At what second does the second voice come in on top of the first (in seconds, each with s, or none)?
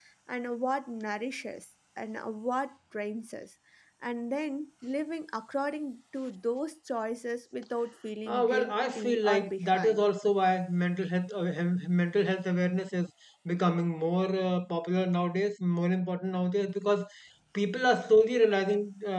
8.3 s